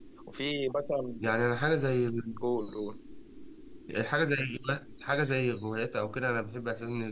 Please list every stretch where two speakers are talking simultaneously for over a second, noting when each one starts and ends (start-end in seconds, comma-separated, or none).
none